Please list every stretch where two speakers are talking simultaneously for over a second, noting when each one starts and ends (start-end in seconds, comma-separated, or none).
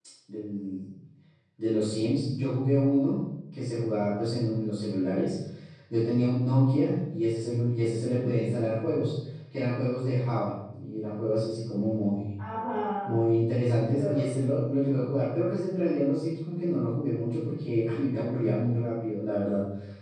none